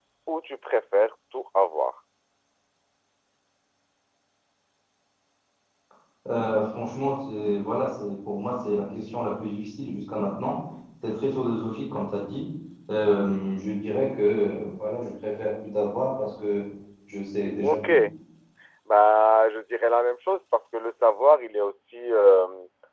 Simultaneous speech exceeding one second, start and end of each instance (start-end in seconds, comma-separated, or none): none